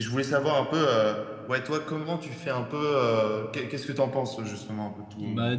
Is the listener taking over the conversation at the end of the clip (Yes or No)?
Yes